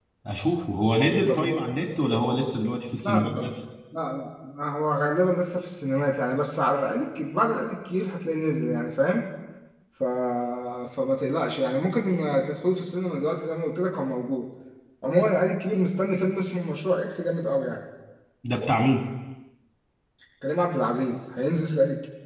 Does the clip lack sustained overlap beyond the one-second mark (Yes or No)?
Yes